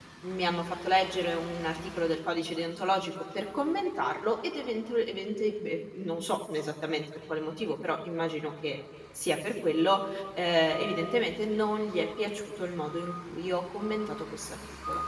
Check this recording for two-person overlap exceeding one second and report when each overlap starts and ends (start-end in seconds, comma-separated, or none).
none